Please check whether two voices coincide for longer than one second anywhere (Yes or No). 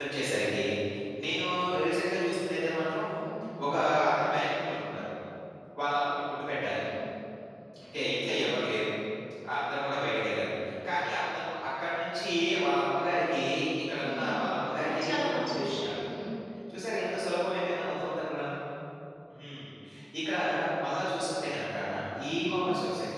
Yes